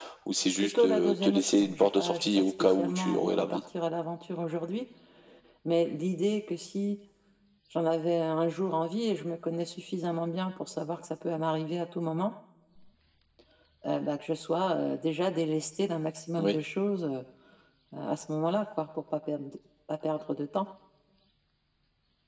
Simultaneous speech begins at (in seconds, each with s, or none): 0.6 s